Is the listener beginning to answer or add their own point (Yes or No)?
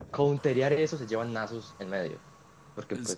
No